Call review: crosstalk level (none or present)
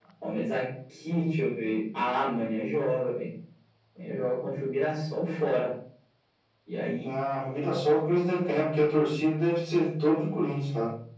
none